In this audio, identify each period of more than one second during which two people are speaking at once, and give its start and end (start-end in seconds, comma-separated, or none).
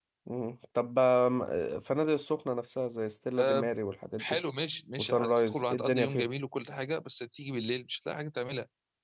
5.0-6.3